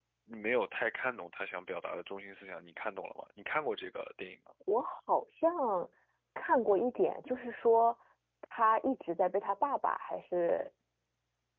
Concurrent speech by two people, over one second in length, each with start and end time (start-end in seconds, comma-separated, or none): none